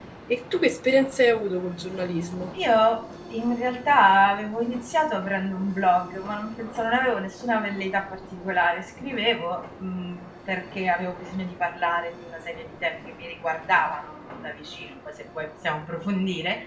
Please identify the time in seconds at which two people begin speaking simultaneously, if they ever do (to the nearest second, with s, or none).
none